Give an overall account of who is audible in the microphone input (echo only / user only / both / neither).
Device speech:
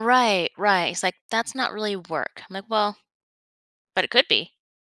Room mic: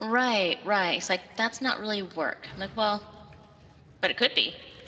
echo only